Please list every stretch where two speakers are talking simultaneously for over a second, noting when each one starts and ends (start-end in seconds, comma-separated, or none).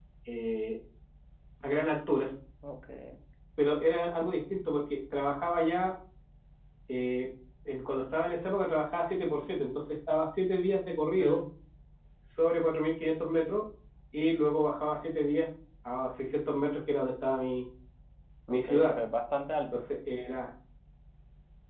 none